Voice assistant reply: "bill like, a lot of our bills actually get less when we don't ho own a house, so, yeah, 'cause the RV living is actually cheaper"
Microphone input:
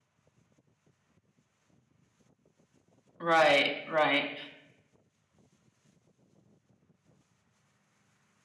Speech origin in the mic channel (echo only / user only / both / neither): user only